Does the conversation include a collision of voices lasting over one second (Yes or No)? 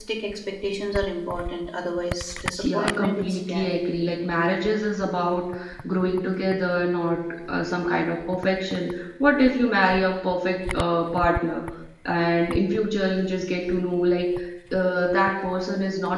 Yes